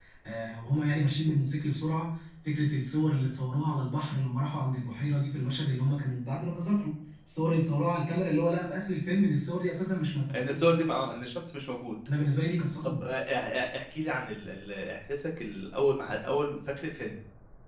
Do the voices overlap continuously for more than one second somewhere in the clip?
No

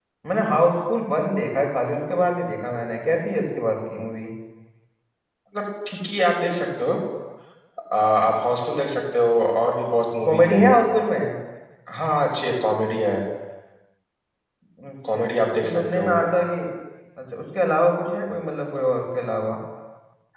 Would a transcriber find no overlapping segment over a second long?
Yes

